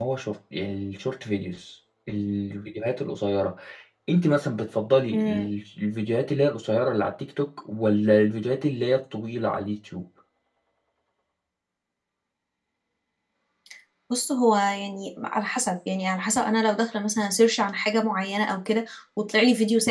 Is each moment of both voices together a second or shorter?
Yes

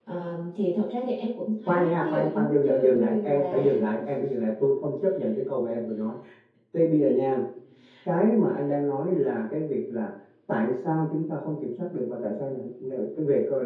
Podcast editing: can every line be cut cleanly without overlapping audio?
No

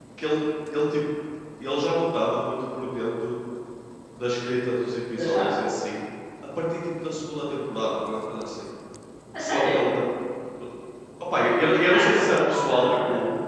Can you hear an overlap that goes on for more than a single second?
Yes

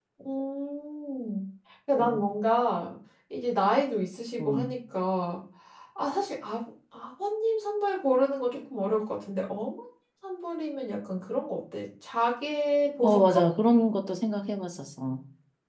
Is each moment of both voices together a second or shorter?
Yes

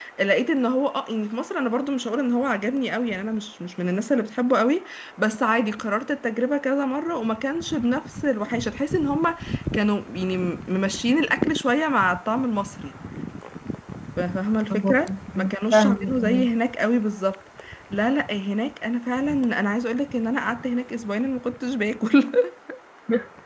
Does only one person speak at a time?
No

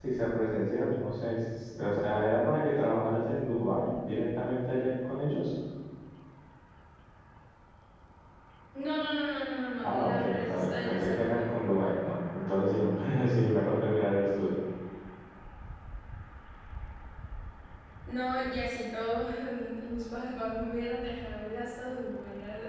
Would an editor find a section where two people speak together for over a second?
Yes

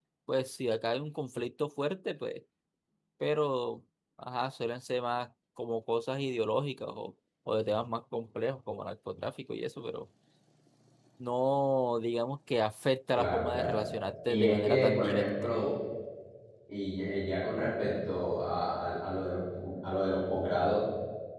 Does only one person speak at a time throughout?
No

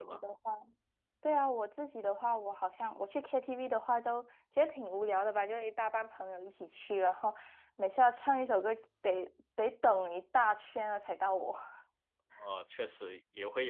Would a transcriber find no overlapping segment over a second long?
Yes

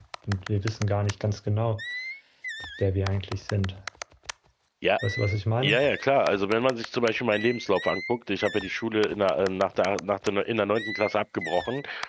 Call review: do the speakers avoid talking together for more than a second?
Yes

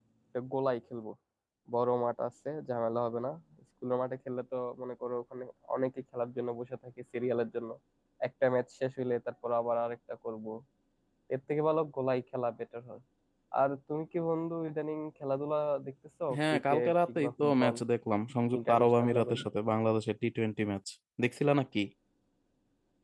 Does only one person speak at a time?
No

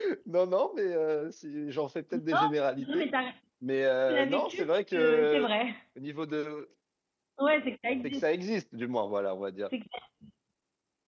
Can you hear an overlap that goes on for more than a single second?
Yes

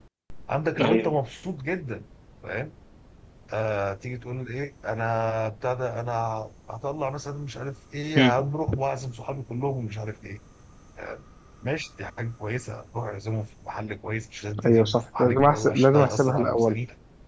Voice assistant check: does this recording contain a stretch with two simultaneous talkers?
Yes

